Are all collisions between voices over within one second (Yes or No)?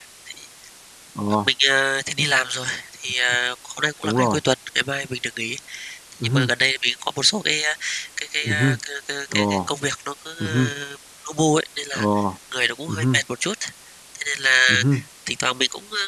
Yes